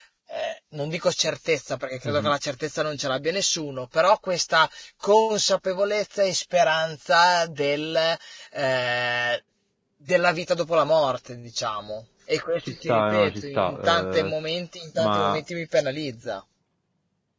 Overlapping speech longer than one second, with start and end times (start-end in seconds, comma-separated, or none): 12.9-14.3